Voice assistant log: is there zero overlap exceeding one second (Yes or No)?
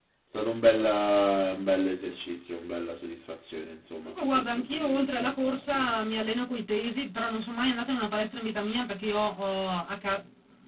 No